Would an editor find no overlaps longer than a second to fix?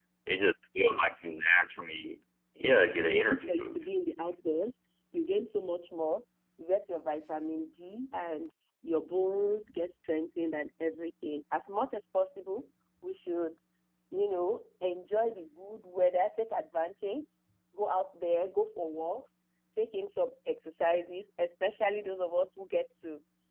No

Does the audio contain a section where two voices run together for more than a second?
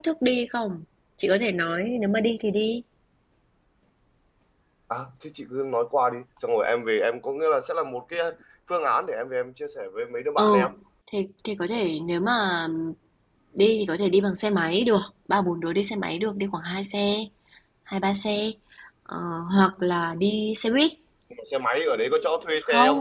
No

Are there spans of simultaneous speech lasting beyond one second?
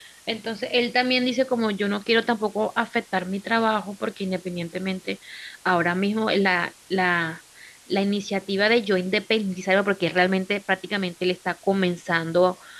No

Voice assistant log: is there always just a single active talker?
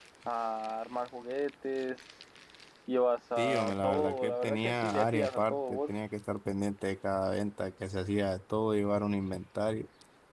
No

